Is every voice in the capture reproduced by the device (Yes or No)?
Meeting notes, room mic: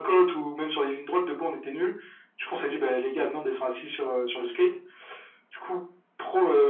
Yes